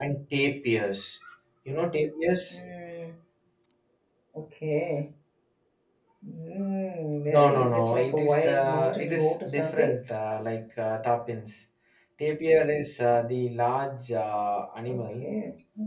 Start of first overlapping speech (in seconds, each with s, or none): 7.3 s